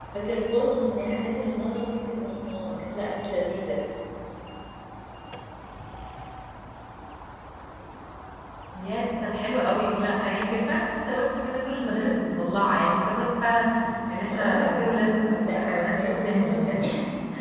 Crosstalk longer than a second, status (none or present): present